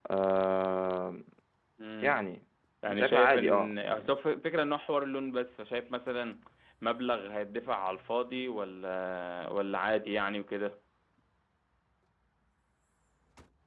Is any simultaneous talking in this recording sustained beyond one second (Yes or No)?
Yes